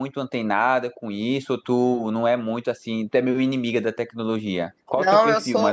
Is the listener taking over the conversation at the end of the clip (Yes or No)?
Yes